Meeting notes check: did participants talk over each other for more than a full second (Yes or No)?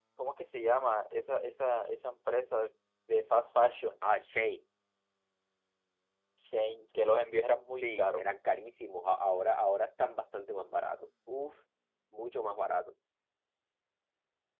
No